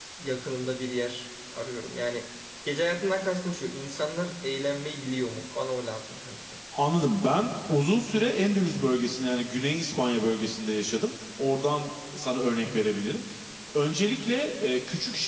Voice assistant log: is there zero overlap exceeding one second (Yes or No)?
Yes